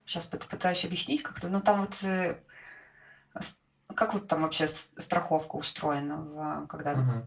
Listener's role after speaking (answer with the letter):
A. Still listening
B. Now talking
B